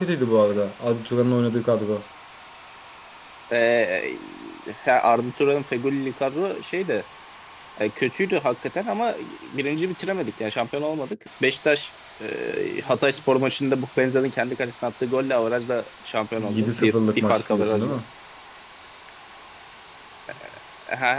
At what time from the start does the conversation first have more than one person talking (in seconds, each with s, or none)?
16.4 s